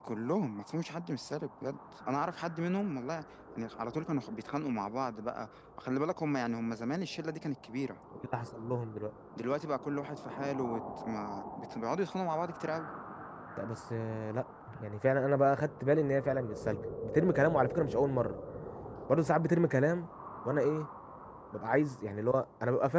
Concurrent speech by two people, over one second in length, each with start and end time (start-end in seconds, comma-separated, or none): none